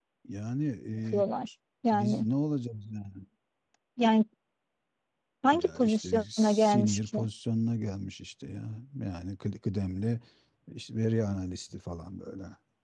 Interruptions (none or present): present